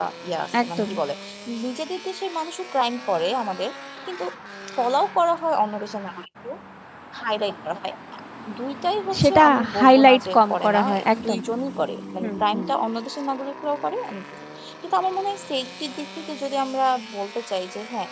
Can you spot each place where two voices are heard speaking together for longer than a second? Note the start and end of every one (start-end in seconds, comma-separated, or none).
9.2-11.4